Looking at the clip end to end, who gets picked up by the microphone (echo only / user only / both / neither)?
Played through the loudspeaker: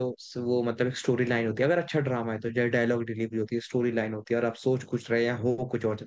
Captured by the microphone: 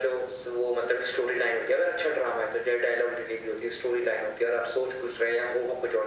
echo only